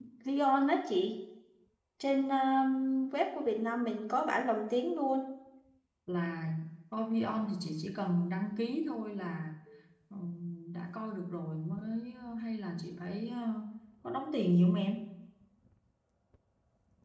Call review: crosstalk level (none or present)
none